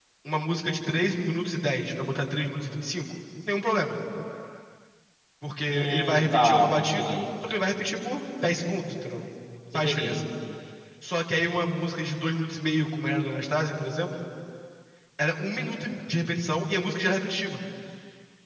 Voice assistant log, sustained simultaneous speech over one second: present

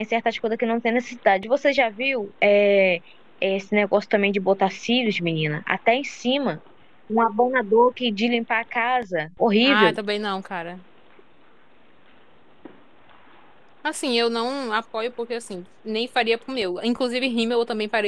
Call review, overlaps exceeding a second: none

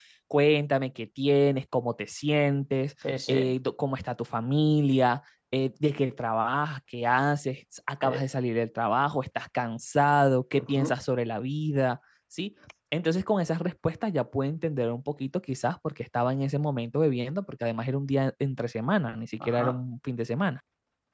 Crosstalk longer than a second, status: none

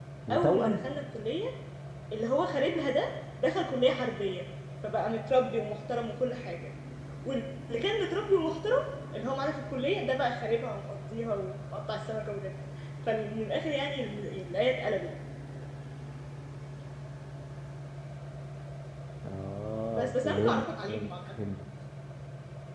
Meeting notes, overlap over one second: present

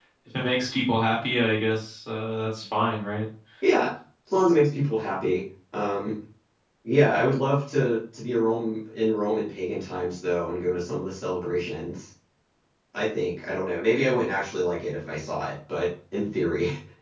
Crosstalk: none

